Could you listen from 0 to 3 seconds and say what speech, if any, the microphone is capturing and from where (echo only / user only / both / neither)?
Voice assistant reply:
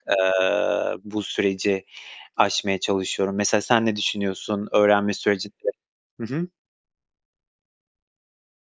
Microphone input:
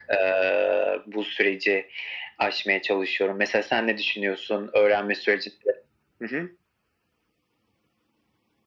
echo only